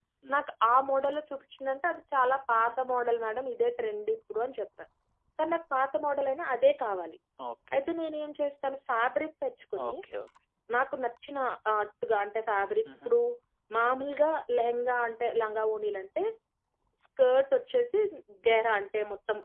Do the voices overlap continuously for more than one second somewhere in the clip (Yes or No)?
No